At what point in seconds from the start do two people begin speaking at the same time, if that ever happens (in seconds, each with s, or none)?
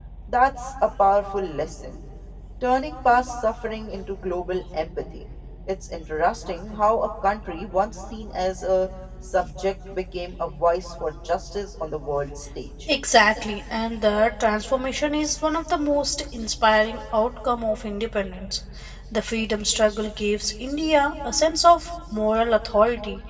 none